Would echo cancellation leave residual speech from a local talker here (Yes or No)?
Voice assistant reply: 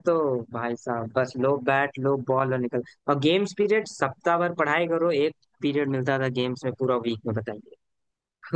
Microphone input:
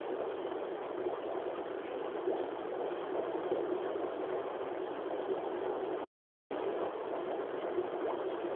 No